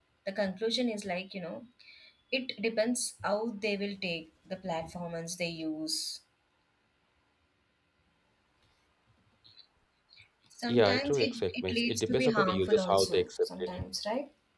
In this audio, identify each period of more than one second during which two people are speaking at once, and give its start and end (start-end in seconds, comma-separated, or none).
10.7-13.8